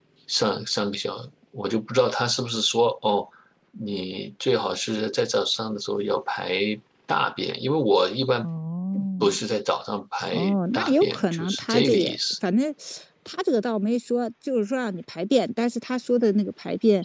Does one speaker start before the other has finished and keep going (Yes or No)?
Yes